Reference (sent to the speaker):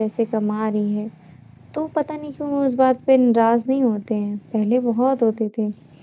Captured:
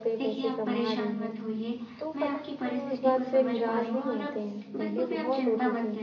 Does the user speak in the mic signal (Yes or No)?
Yes